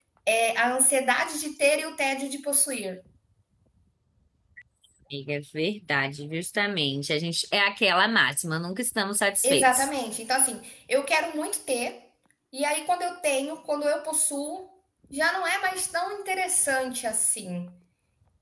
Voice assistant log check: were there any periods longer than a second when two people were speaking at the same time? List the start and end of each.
none

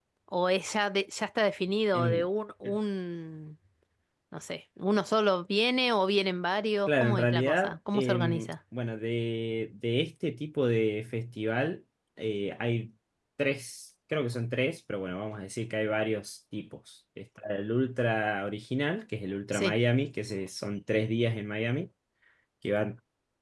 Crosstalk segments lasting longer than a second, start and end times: 6.9-8.5

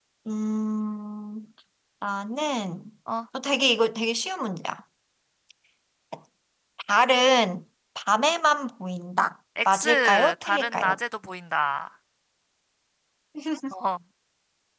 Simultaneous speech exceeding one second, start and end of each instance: 9.7-11.0

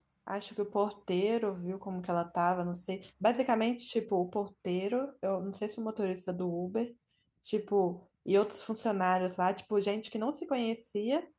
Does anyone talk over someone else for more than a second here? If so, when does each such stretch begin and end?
none

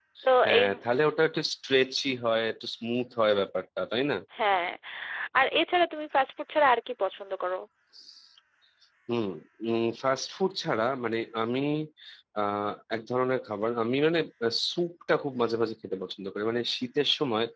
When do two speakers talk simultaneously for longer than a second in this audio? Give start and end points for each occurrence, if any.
none

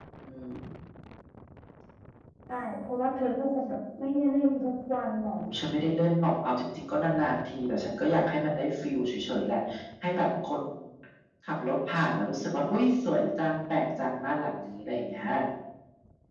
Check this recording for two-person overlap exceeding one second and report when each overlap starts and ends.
none

